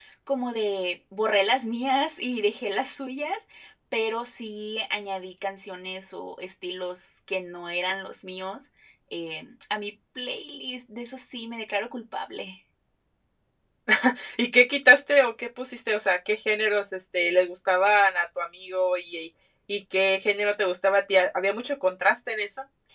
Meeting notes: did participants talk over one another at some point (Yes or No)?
No